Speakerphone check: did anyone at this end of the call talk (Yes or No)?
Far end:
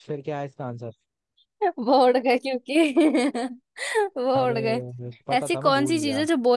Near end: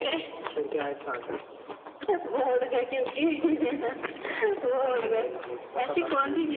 No